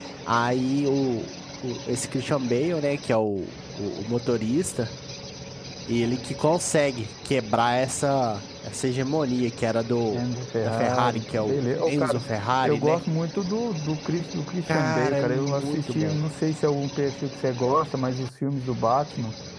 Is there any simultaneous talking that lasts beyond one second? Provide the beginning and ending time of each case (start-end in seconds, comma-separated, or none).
10.6-12.2, 14.7-16.2